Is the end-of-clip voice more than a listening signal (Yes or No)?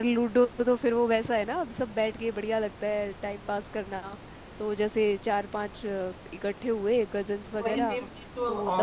Yes